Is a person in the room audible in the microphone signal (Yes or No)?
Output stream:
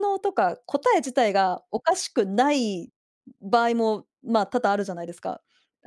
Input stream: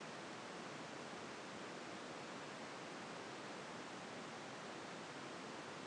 No